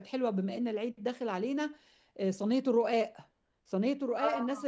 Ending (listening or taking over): listening